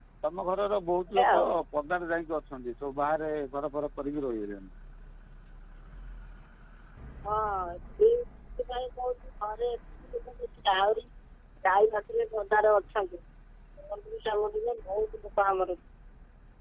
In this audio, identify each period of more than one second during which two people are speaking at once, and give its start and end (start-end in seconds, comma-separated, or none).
none